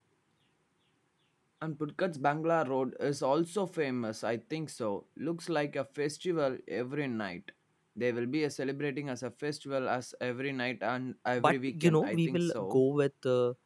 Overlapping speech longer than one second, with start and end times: 11.4-12.8

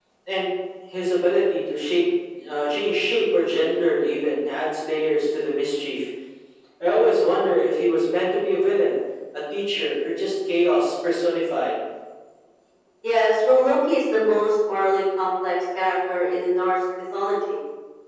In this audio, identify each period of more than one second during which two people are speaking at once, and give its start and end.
none

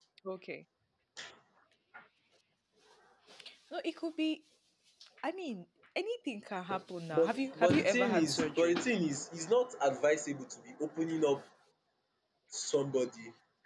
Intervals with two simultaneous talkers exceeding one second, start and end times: 7.1-8.8

